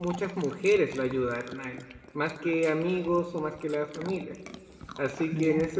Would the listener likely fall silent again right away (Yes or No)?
Yes